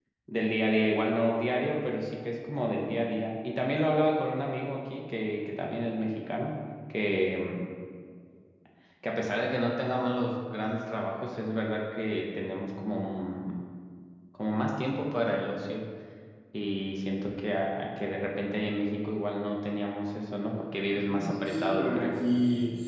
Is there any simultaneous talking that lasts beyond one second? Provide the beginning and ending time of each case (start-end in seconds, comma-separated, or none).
20.9-22.1